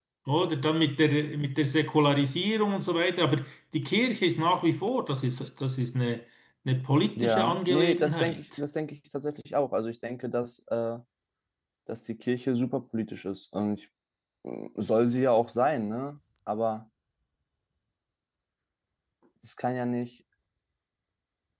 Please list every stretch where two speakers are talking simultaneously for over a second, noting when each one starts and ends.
7.2-8.4

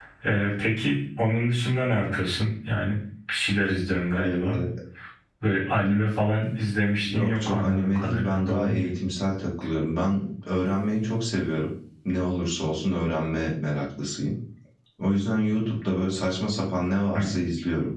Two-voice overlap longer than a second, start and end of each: 7.0-8.9

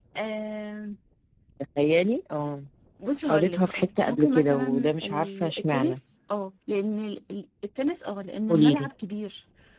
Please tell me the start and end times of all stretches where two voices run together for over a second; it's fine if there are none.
3.3-6.0

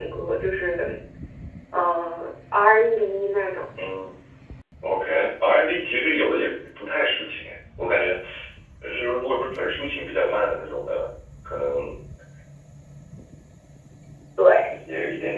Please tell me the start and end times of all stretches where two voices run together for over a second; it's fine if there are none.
none

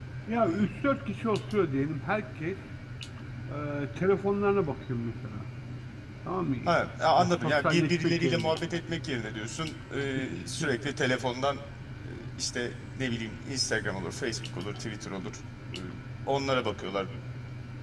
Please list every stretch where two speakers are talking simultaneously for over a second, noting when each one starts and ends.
7.2-8.5

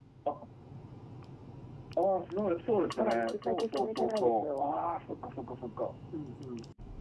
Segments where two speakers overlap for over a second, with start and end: 3.0-4.7

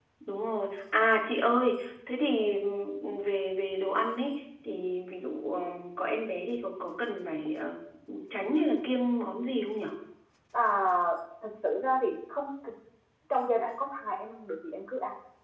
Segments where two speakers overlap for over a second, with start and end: none

